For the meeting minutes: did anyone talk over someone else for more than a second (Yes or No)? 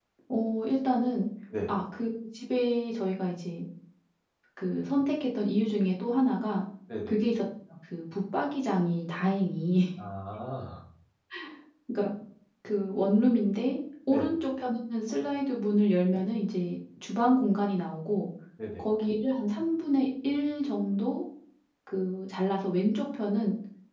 No